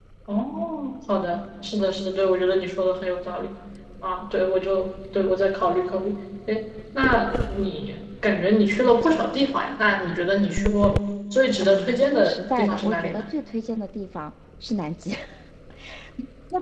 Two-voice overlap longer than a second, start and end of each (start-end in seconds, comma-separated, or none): 11.6-13.2